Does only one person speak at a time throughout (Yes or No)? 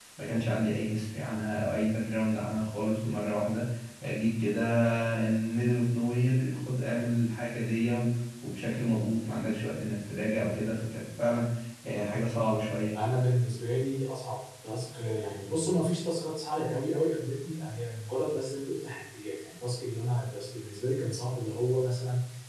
Yes